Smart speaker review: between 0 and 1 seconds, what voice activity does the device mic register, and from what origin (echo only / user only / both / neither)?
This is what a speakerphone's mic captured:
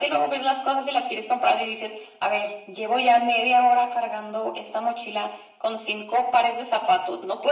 echo only